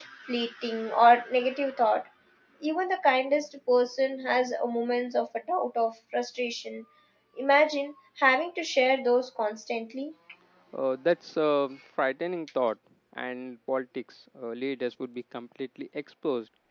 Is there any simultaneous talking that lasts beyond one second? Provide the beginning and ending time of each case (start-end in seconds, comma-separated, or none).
none